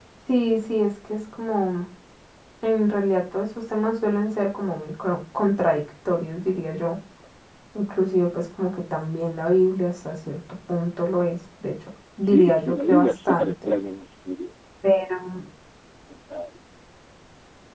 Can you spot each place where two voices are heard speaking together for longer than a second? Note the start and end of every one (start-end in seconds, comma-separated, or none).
12.2-13.7